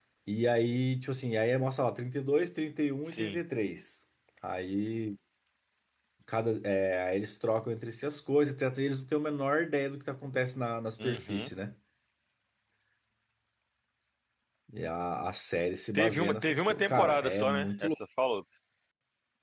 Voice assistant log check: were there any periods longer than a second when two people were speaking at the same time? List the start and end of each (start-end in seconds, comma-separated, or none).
15.9-17.9